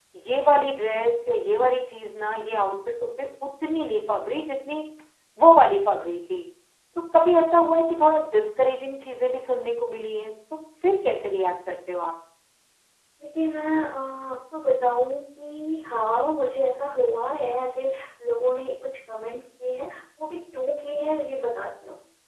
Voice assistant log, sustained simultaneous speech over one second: none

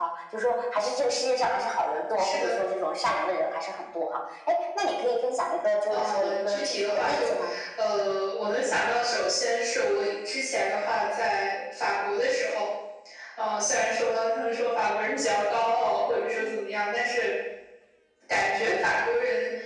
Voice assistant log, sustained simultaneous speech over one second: present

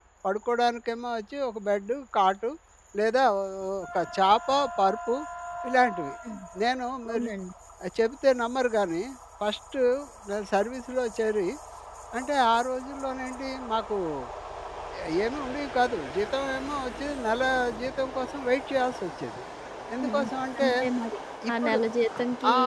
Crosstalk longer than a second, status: none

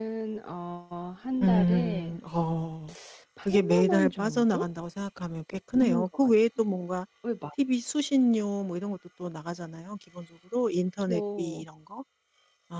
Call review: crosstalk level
present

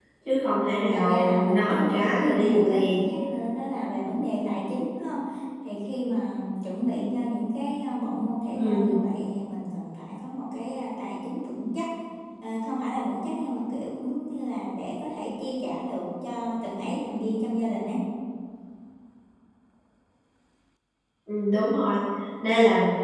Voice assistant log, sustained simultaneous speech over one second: present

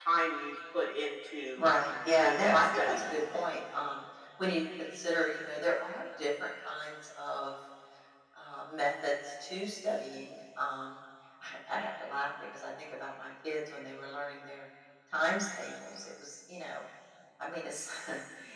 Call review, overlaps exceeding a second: present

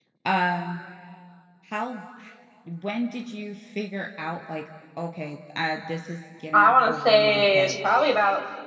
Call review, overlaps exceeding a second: present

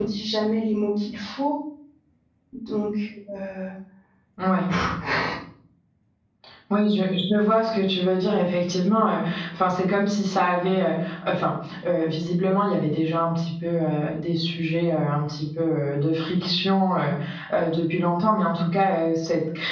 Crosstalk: none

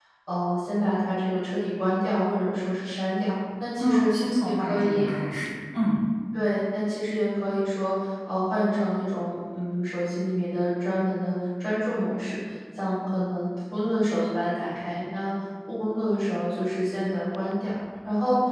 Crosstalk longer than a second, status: present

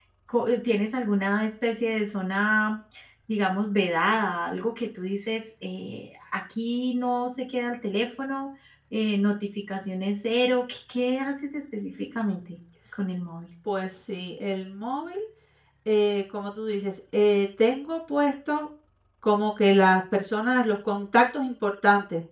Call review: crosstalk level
none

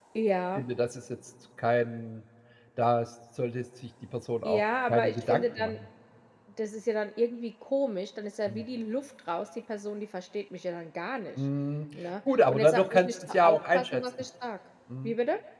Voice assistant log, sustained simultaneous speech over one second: present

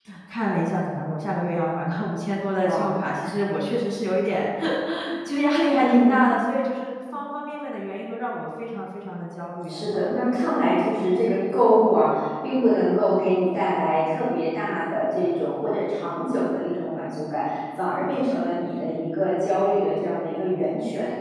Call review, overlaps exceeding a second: none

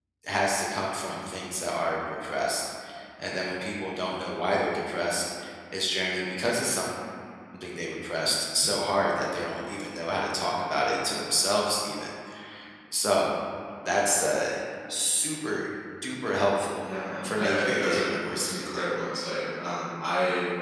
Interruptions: present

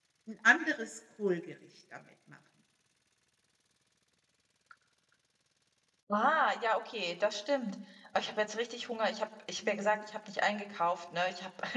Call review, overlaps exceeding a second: none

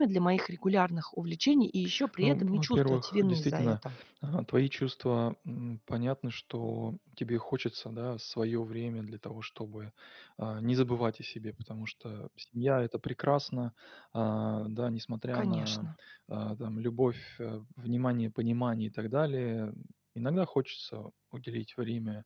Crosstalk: present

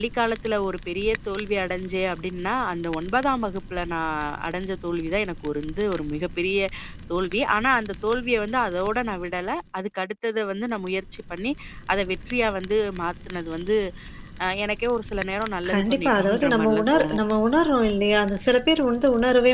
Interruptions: present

